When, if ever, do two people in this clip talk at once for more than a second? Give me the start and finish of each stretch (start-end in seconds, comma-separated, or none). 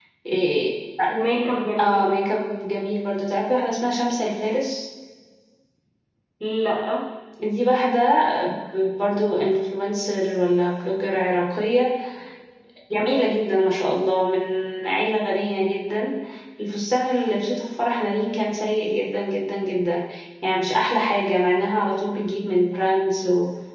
none